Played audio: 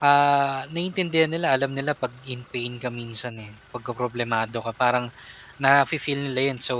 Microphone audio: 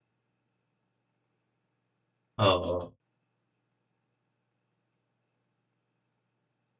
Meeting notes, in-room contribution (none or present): present